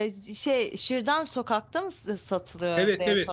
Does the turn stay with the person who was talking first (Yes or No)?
No